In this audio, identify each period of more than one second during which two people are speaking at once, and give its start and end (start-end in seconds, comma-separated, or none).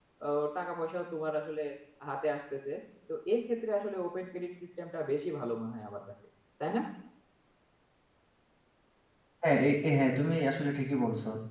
none